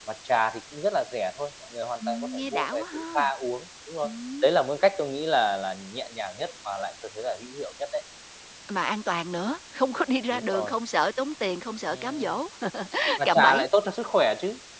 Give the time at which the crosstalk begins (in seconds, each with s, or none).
2.1 s